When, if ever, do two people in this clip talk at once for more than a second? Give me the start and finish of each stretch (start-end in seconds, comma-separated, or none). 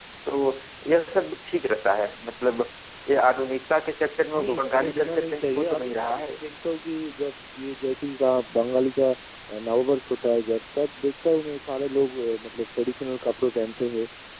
4.3-6.4